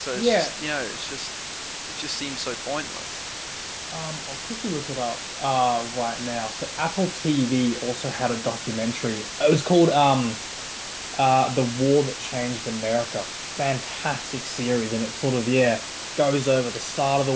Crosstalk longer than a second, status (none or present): none